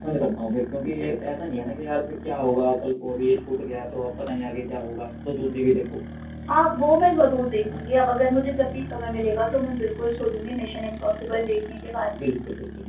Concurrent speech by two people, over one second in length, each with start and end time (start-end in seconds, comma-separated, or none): none